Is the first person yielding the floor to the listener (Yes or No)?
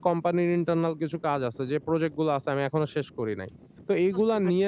No